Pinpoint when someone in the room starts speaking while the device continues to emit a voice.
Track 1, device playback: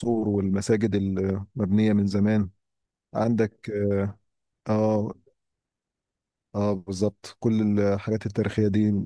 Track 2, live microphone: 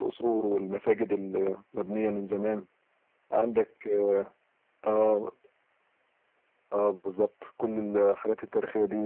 none

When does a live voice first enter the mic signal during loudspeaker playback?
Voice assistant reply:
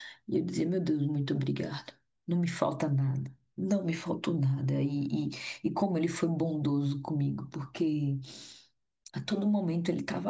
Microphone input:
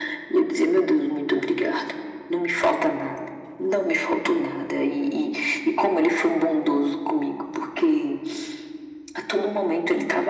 none

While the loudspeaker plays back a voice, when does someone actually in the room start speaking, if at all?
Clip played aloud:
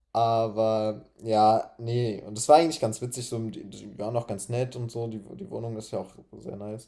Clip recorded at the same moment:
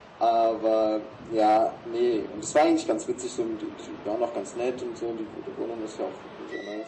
none

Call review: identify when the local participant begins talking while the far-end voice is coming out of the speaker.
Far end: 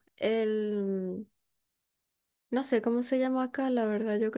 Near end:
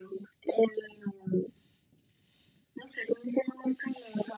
none

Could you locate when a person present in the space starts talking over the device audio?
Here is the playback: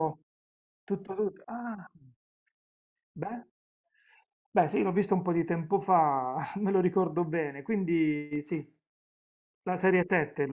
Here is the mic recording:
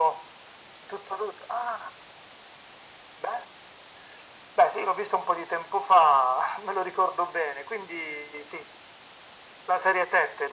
none

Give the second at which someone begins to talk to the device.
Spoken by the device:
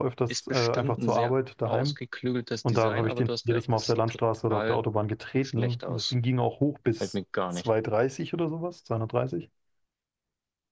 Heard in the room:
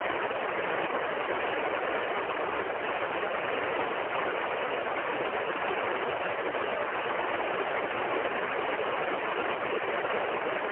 none

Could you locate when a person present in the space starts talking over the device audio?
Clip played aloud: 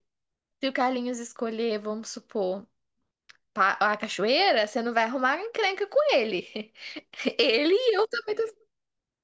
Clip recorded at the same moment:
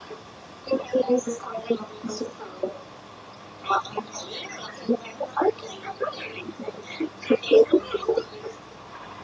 none

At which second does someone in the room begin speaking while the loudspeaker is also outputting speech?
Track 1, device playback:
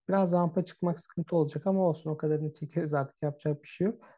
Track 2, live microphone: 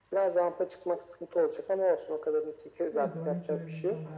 2.9 s

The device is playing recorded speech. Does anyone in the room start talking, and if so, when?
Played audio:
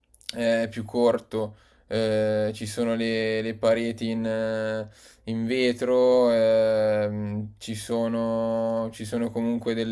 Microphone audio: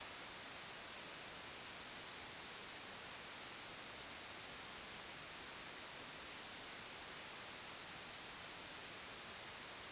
none

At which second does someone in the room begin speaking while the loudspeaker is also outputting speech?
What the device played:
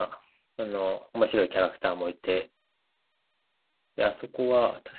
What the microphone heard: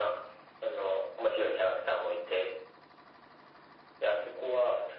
none

